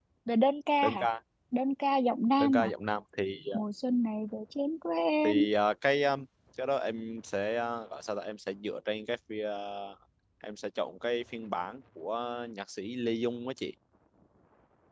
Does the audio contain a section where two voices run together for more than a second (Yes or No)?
No